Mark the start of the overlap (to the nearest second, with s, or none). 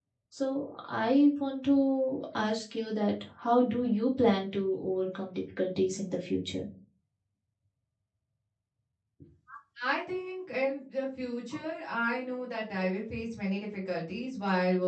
none